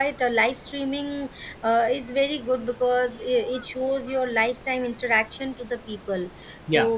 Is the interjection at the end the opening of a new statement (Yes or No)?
No